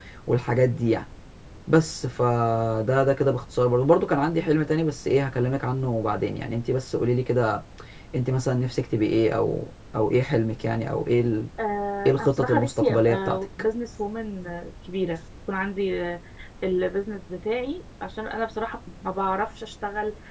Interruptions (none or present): present